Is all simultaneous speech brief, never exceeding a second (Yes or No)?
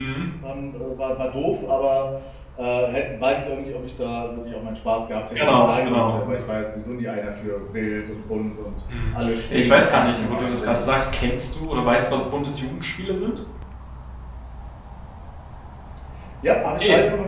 No